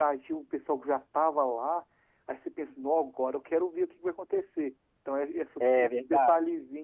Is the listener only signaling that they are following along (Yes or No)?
Yes